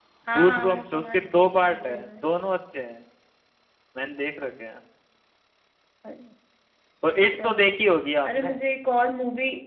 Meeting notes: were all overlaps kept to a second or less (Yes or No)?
No